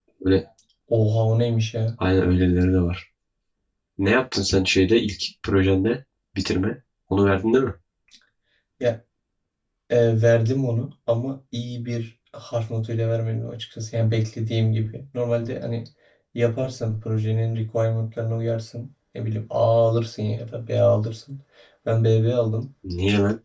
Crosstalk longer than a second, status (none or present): none